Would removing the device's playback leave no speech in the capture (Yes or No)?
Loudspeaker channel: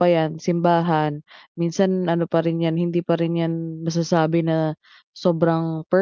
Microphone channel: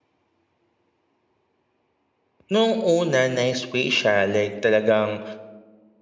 No